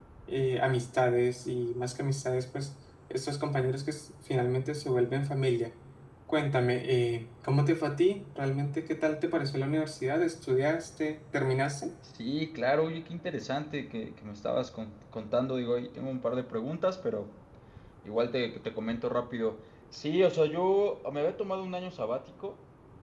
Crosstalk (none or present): none